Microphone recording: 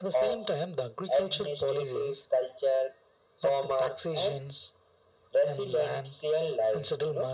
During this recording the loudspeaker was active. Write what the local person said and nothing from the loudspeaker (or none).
none